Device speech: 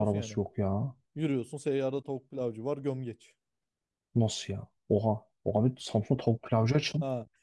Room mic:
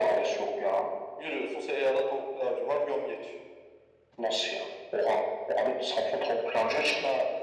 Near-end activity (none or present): none